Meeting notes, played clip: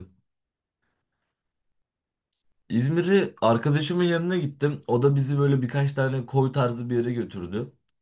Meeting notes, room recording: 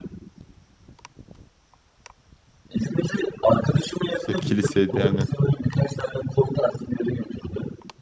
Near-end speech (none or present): present